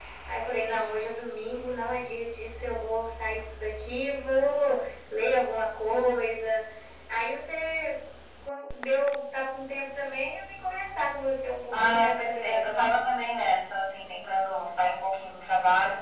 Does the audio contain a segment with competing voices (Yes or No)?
Yes